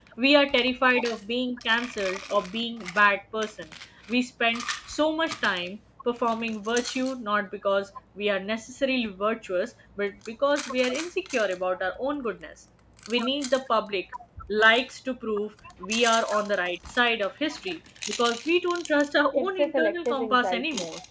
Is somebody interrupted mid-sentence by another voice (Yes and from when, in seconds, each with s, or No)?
Yes, from 19.3 s